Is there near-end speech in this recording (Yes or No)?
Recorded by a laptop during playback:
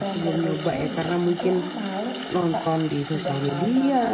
Yes